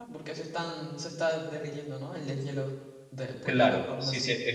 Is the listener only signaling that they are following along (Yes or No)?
No